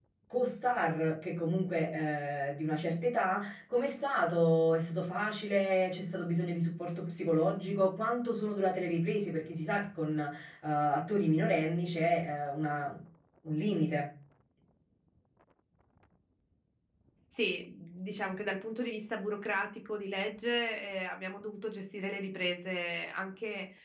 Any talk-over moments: No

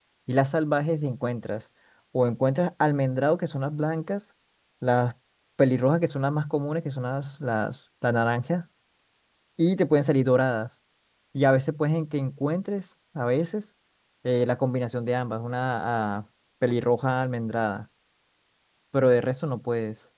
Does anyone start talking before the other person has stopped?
No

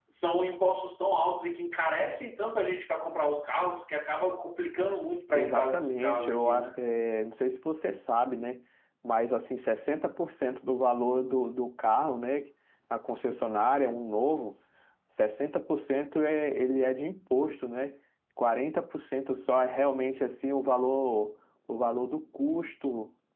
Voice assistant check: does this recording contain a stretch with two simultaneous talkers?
Yes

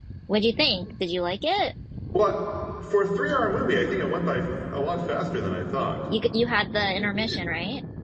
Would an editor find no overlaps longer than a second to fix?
Yes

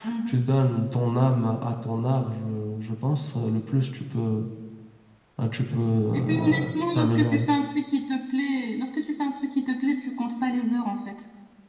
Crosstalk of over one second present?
Yes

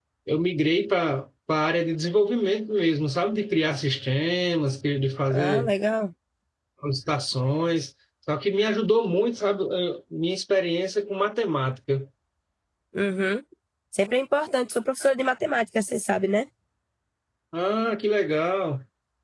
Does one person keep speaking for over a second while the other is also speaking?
No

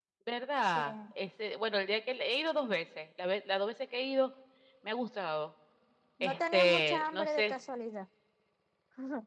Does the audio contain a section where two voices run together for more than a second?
Yes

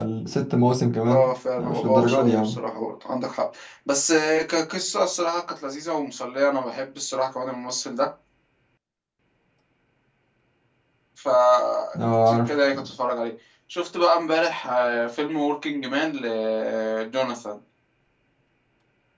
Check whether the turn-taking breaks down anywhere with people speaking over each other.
Yes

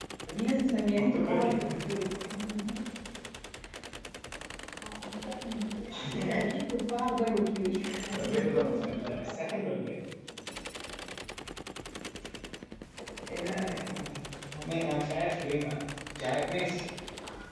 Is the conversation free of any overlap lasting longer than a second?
No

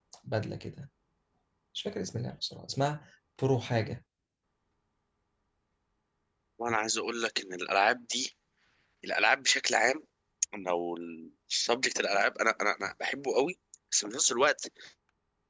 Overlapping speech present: No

